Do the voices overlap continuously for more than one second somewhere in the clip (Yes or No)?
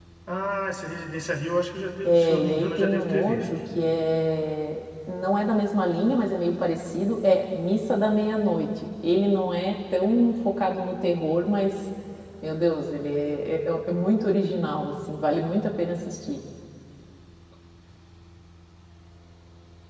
Yes